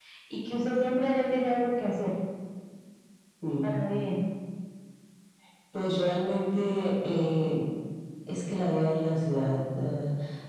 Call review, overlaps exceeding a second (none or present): none